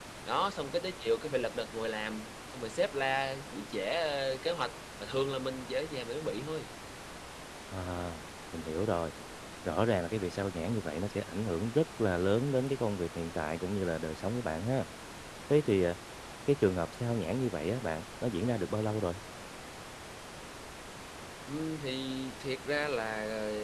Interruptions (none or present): none